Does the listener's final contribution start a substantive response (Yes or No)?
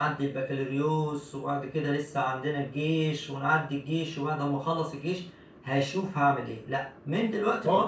No